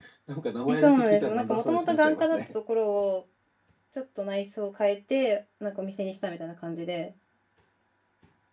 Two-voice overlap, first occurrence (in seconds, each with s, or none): 0.7 s